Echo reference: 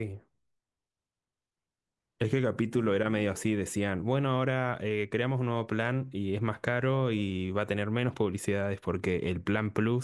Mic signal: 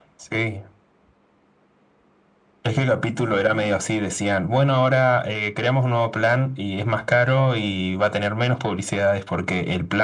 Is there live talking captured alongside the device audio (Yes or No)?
No